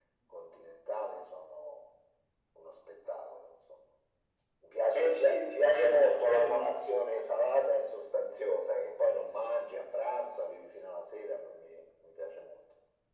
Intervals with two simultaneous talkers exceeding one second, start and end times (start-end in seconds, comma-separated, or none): 5.0-6.7